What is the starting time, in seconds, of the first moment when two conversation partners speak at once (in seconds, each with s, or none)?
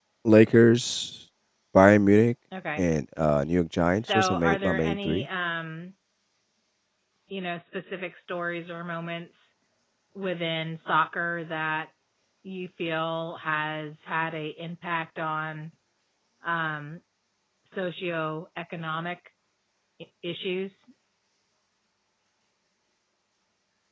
4.0 s